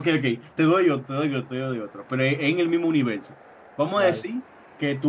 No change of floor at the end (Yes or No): Yes